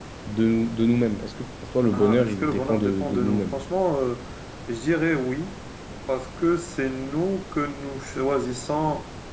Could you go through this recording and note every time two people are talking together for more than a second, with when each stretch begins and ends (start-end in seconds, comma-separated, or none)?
1.9-3.6